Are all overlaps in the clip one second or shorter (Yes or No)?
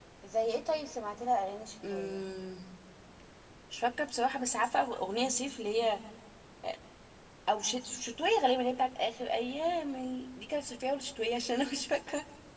Yes